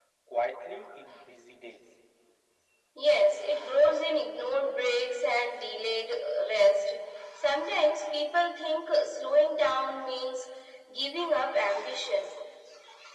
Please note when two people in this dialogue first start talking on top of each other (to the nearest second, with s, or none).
none